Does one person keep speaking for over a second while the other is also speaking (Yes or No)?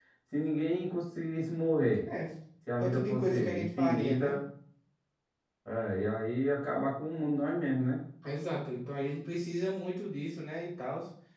Yes